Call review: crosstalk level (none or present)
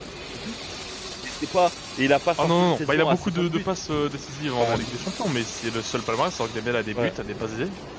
present